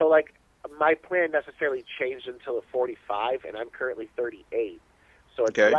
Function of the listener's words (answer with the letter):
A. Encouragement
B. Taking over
A